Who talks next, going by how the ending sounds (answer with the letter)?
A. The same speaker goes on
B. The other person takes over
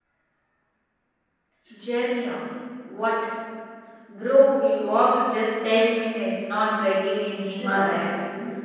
B